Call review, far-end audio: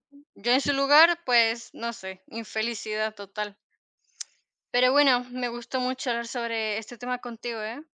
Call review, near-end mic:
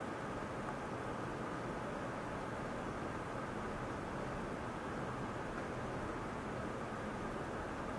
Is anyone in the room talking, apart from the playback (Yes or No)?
No